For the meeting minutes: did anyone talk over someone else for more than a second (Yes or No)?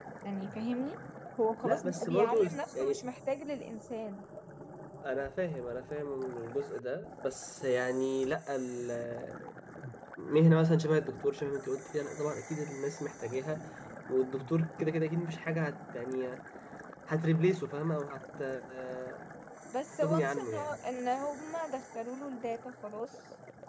Yes